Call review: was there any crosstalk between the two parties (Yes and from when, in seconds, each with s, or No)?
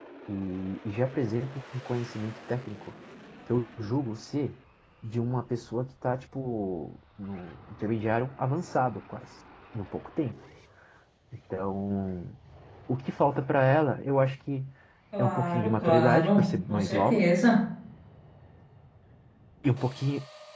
Yes, from 15.2 s